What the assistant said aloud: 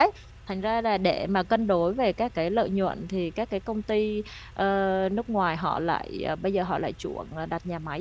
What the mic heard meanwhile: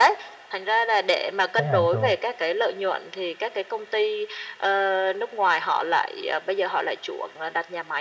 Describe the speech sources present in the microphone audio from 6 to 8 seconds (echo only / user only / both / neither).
echo only